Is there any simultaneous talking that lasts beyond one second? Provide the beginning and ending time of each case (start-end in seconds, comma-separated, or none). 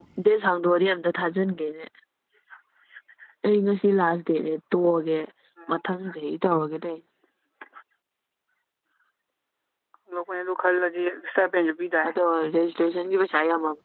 none